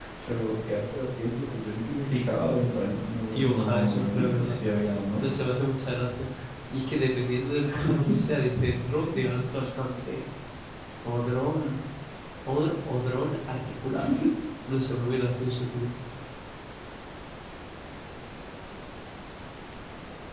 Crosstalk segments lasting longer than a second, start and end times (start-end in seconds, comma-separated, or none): 3.3-4.6